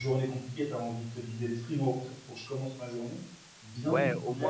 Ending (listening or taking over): taking over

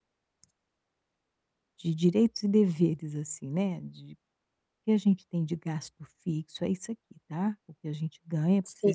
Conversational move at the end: listening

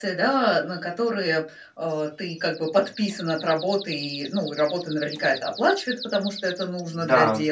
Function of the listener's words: listening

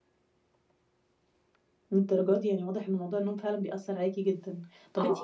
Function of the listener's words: listening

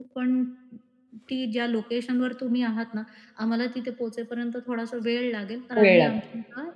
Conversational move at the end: listening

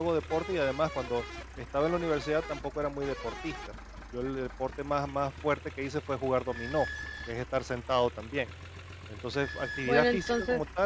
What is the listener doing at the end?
listening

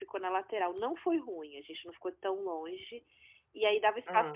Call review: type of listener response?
listening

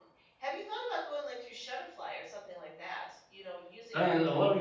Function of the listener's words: taking over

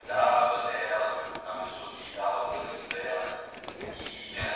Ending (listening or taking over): listening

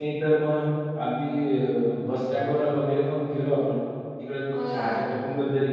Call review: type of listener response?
listening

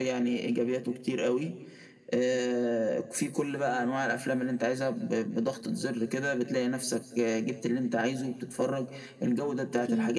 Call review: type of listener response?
listening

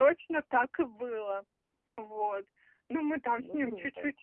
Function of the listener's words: listening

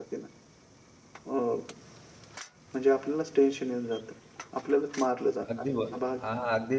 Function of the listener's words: taking over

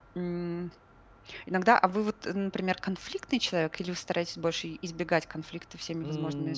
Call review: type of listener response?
taking over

